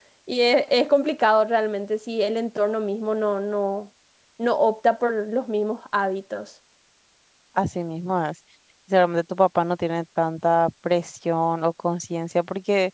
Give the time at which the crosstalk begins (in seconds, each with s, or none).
none